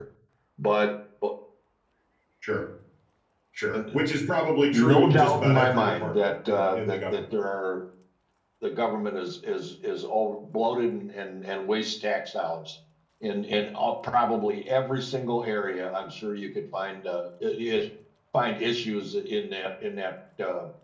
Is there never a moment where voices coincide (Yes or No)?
No